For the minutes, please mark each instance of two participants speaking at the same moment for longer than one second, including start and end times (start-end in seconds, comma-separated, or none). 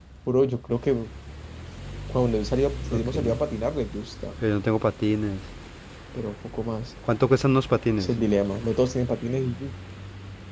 none